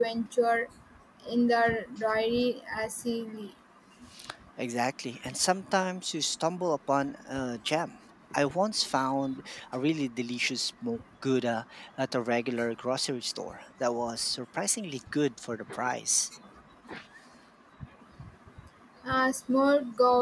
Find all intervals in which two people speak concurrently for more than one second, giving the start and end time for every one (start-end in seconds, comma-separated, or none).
none